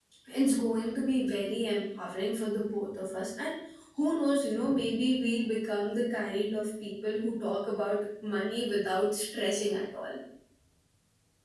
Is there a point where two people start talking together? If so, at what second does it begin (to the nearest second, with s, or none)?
none